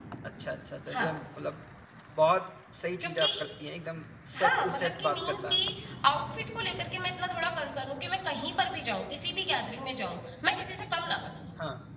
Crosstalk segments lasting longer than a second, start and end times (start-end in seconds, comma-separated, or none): 4.3-5.6